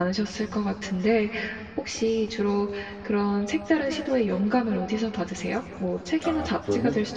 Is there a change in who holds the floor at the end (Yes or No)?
No